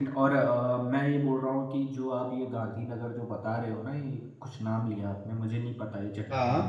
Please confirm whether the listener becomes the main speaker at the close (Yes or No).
No